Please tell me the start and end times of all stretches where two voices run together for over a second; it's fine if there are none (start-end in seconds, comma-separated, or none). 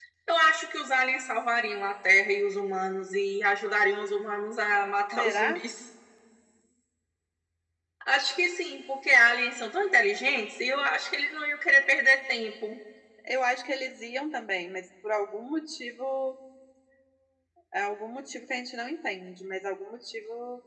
none